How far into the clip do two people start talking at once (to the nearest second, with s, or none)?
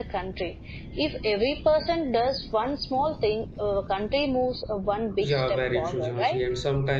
5 s